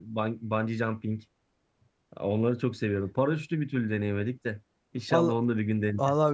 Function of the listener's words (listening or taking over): taking over